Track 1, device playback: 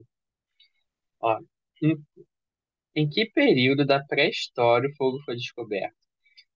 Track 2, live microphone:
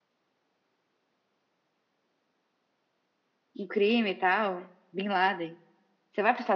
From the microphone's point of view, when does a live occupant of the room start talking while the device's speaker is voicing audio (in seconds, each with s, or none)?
3.6 s